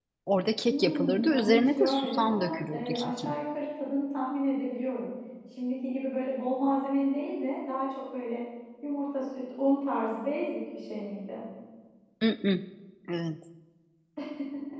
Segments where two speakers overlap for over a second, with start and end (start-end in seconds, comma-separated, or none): 0.7-3.3